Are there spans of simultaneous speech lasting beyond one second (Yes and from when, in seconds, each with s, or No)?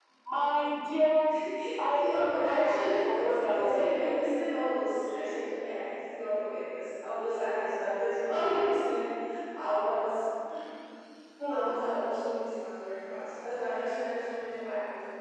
Yes, from 1.9 s